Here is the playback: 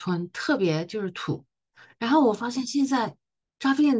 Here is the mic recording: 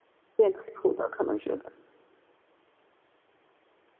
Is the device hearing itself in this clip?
No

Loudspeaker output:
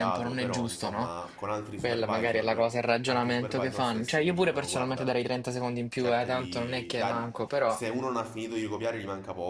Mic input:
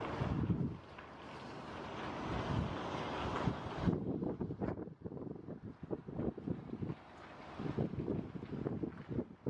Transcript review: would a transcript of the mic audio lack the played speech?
Yes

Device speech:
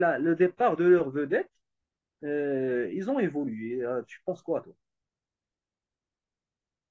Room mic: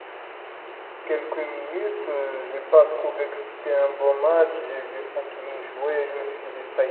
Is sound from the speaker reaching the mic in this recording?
No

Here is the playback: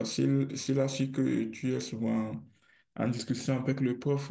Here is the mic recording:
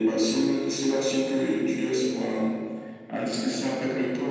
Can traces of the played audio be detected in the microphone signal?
Yes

